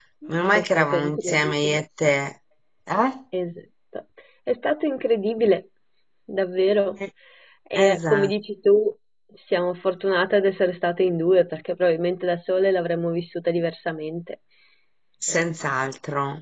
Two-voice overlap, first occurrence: 0.5 s

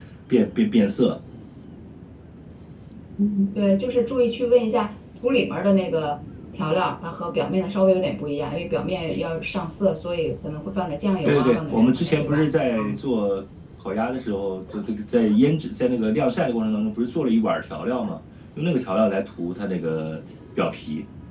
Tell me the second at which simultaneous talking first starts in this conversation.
11.2 s

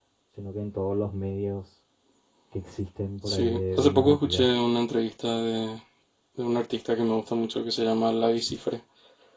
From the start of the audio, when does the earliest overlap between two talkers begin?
3.2 s

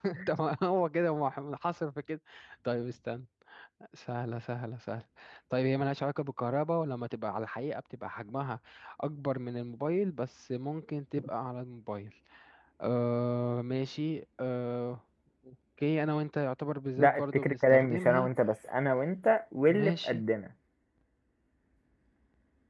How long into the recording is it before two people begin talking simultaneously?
17.0 s

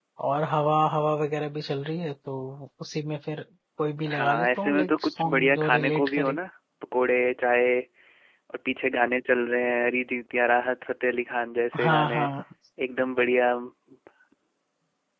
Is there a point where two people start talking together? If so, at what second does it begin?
4.1 s

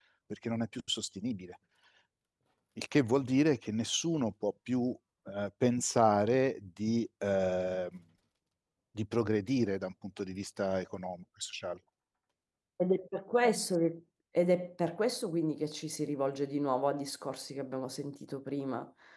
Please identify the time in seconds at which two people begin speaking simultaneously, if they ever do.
none

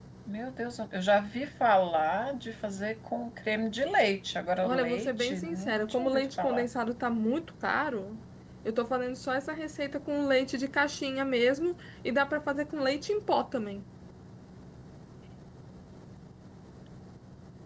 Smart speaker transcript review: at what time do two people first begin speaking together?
4.6 s

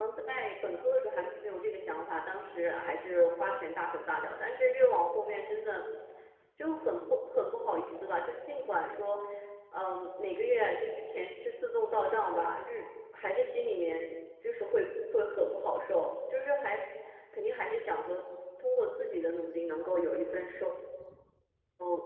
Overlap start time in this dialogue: none

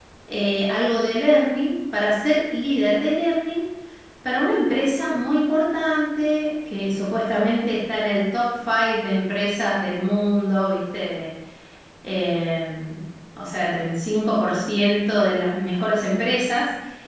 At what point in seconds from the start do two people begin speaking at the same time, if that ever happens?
none

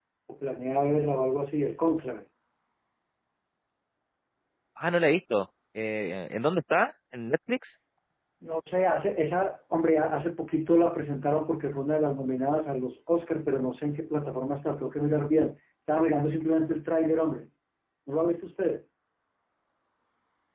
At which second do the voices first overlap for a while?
none

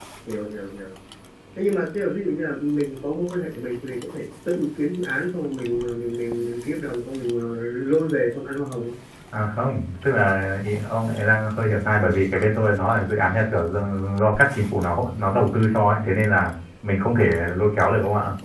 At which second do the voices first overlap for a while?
none

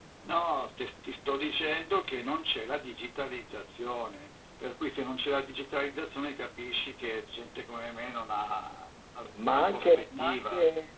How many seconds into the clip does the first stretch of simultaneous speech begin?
9.2 s

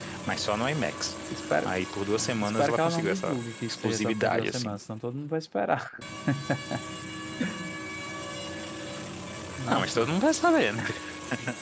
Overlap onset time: 2.2 s

